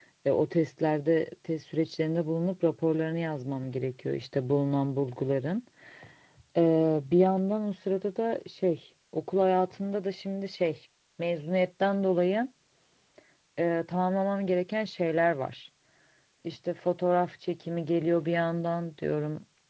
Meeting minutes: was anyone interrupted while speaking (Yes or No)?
No